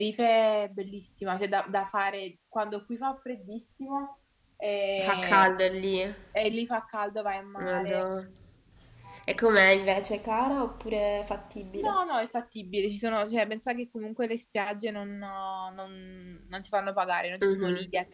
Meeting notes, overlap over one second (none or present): none